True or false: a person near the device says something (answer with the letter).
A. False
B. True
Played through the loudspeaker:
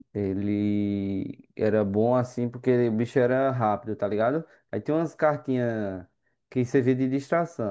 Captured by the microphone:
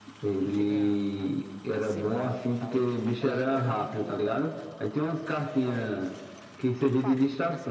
B